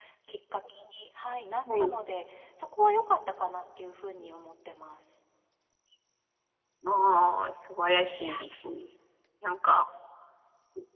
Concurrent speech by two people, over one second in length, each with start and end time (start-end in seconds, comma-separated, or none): none